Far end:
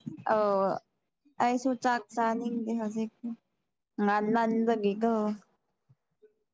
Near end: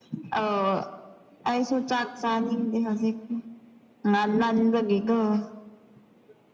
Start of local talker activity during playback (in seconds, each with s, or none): none